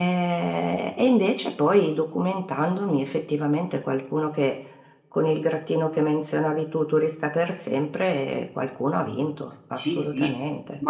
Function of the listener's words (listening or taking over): taking over